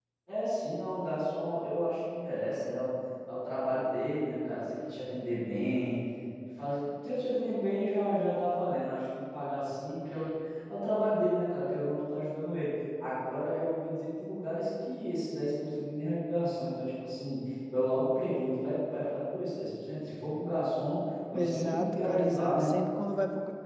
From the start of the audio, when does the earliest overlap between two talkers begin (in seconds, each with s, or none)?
21.3 s